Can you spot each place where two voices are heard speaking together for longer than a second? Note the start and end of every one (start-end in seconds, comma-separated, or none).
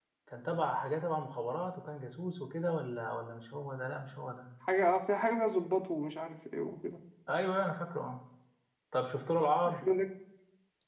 none